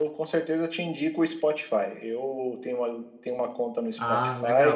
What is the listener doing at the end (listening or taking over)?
listening